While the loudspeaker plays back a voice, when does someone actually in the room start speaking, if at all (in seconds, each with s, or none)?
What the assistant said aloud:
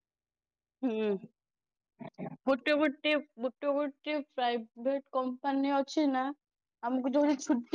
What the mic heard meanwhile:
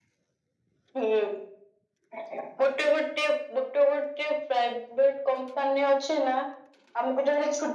none